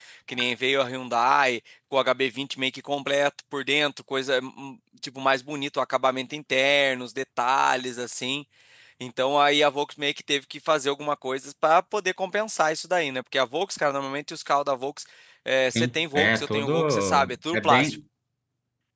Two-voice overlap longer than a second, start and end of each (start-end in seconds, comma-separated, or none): 15.8-18.0